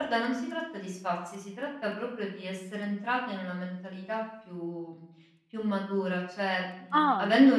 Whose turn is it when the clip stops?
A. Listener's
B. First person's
B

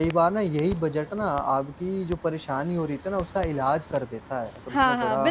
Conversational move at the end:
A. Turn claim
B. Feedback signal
A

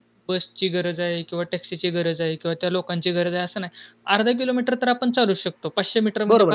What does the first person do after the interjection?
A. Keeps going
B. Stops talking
B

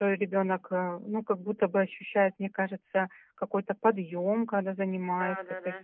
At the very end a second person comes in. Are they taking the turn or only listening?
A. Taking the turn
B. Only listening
A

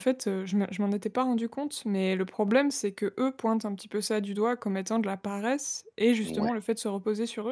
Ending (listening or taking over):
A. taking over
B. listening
B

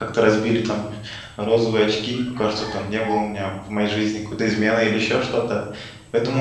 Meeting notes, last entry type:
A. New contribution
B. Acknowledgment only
B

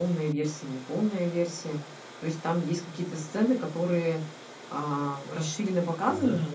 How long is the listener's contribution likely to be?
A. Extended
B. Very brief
A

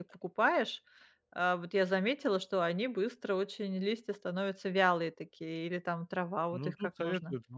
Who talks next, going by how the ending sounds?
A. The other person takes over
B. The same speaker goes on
A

